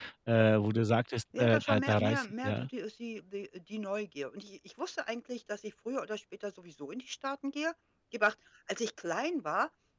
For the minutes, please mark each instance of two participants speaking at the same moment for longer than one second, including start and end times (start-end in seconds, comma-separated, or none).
1.4-2.7